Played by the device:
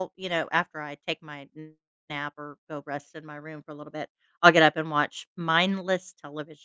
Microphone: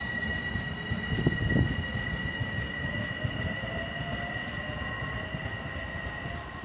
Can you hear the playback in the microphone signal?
No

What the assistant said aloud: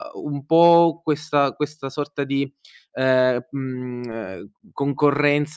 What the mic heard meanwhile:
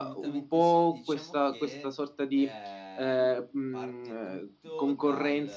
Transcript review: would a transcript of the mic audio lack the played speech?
No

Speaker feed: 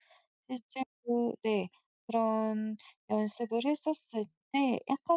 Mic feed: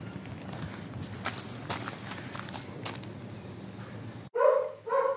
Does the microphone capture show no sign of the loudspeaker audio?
Yes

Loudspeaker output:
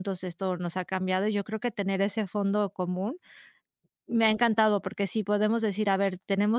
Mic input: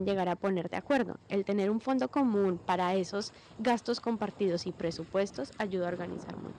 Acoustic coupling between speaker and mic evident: No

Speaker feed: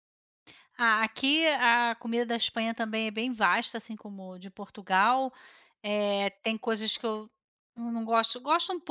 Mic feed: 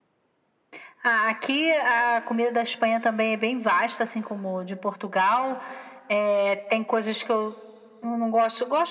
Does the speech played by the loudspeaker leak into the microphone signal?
Yes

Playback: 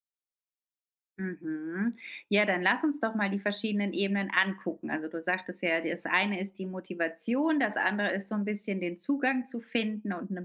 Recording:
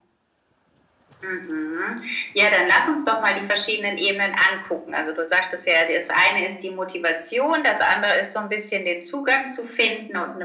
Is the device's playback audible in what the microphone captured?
Yes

